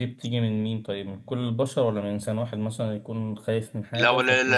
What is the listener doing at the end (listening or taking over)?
taking over